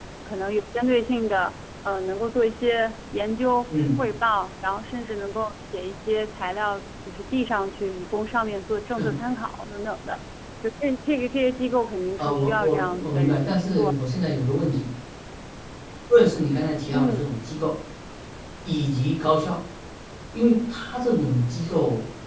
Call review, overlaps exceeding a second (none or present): present